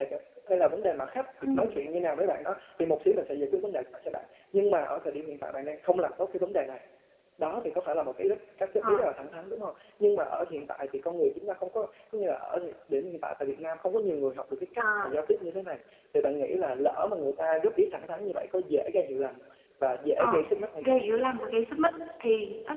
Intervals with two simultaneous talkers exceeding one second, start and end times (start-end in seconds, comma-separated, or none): none